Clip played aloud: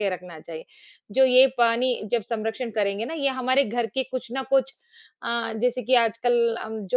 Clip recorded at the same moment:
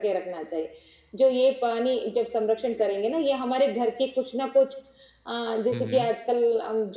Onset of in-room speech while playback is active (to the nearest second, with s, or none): 6 s